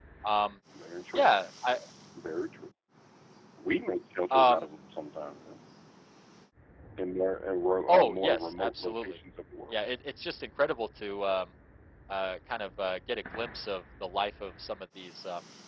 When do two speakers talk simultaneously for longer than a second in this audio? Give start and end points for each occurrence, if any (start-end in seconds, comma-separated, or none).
7.9-9.2